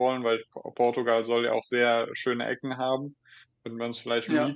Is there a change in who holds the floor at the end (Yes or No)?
No